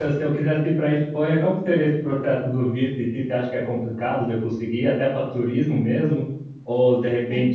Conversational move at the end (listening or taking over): listening